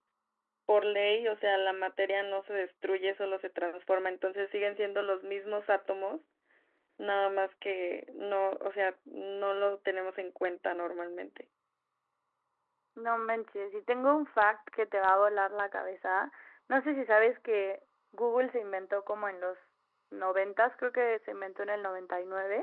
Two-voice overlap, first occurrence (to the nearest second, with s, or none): none